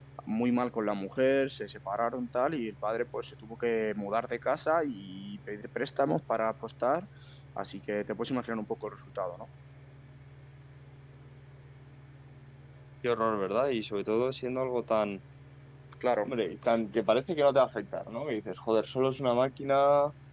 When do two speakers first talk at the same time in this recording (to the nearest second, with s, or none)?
none